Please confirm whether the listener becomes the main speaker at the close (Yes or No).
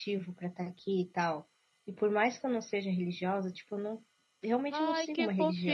Yes